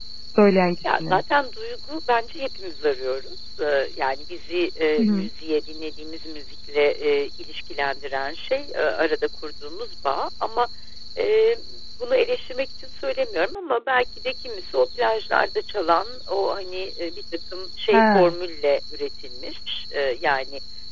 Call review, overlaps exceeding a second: none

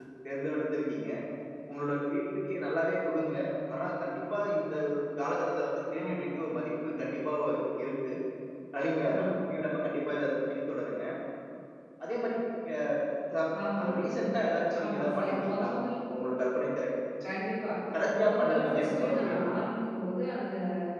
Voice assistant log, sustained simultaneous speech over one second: present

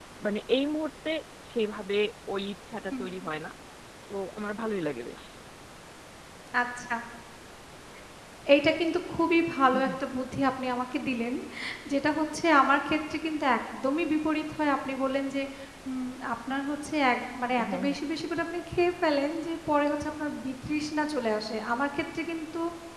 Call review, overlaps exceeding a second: none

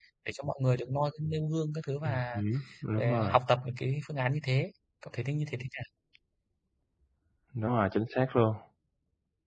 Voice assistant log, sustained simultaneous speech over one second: none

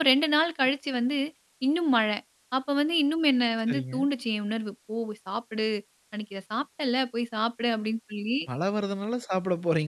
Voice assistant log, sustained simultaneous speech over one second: none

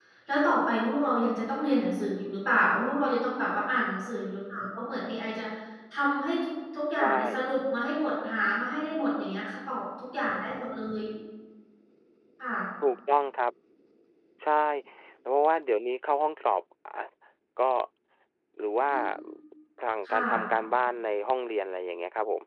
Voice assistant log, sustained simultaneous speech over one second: none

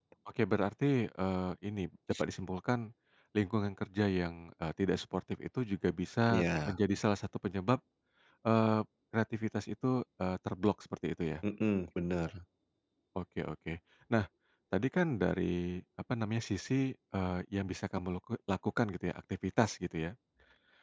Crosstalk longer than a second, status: none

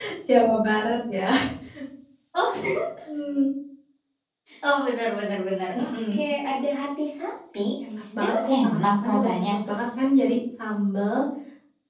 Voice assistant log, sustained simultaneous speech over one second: present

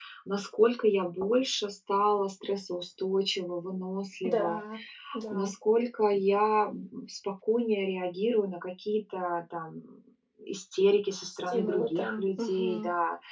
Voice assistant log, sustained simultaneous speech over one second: present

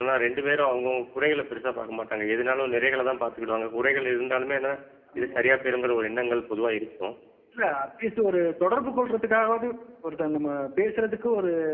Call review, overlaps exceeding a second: none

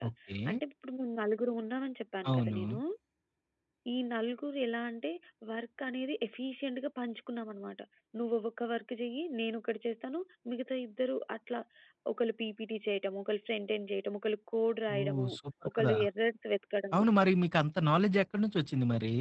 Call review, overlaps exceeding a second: none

